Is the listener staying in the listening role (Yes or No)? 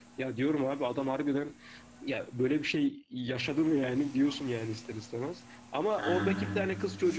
Yes